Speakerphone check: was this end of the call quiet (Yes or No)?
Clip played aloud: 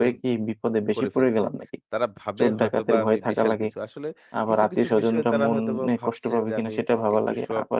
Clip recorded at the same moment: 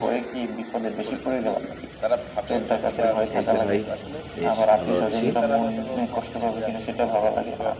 No